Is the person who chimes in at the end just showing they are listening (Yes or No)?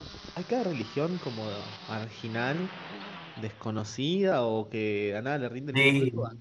Yes